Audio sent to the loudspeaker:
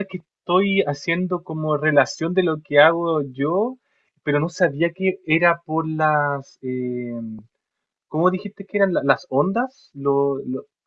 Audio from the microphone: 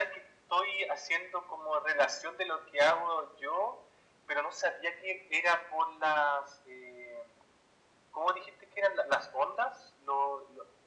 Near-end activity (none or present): none